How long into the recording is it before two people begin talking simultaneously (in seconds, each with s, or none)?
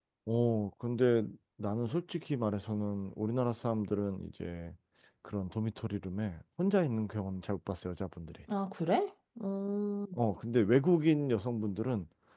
none